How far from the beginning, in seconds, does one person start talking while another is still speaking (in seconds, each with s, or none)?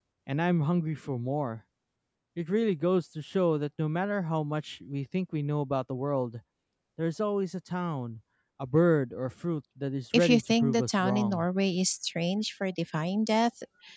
10.1 s